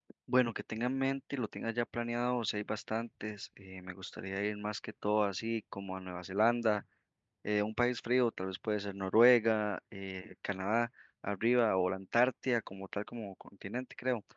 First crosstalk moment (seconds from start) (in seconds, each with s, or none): none